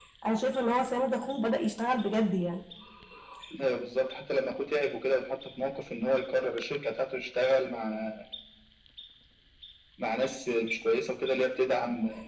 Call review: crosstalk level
none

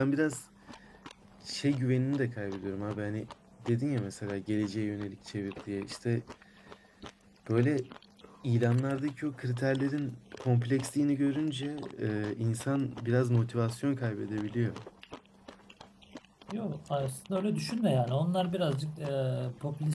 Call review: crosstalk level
none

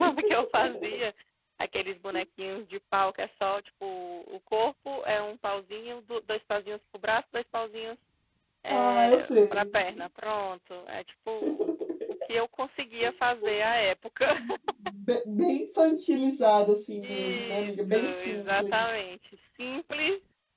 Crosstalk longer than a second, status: present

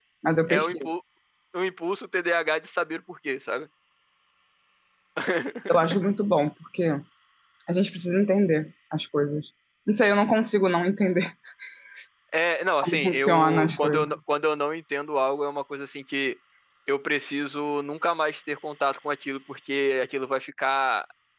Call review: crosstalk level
present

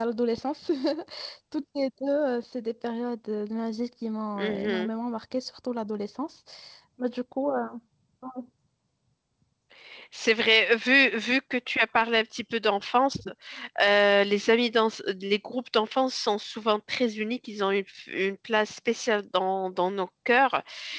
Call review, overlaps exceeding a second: none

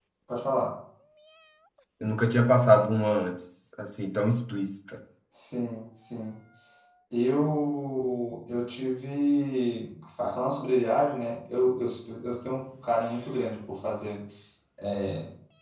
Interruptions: none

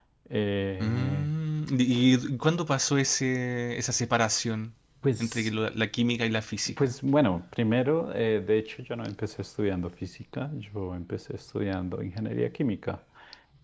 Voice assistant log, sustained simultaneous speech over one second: none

